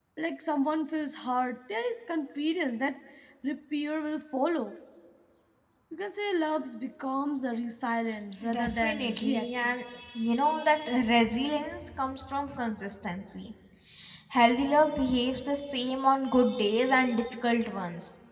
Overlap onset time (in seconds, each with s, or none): 8.4 s